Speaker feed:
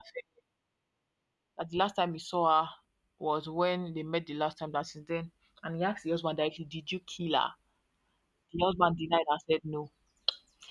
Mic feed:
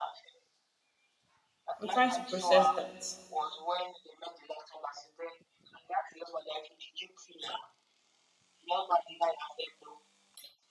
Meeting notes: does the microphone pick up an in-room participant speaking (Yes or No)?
Yes